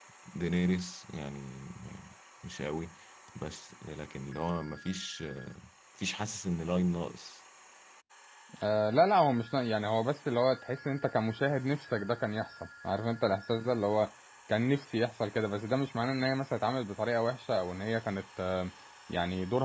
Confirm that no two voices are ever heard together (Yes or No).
Yes